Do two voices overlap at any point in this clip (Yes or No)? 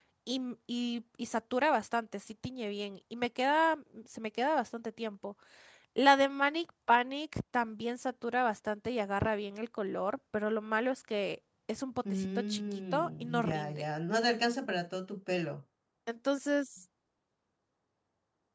Yes